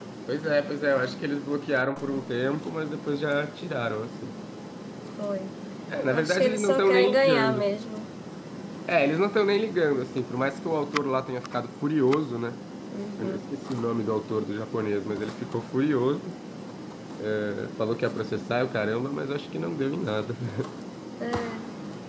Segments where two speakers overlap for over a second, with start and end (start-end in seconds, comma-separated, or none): 6.1-7.6